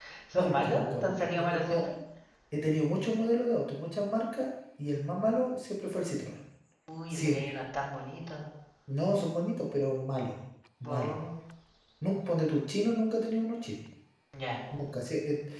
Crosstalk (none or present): present